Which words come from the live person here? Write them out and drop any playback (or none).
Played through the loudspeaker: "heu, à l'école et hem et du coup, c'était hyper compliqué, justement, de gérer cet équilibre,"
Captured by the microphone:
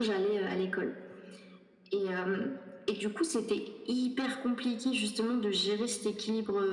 none